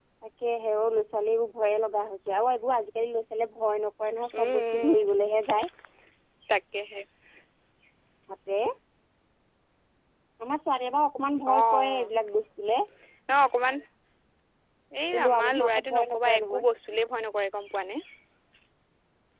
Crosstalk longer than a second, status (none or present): present